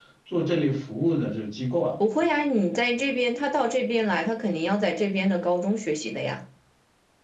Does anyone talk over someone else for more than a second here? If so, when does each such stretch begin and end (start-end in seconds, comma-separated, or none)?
none